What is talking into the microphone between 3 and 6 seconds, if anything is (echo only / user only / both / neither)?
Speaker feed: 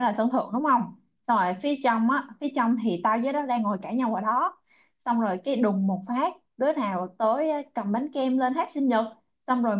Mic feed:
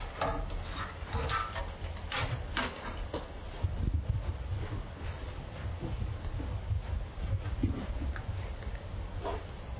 neither